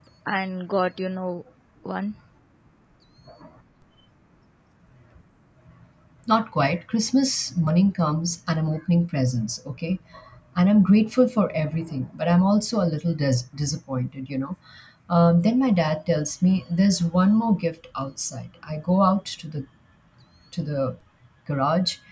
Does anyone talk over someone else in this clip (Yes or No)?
No